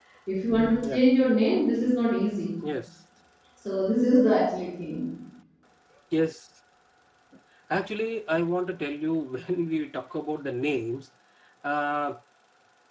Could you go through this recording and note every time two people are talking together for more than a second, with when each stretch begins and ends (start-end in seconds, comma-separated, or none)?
none